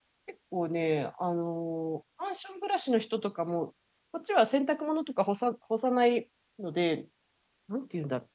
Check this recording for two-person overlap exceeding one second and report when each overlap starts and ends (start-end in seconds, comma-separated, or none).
none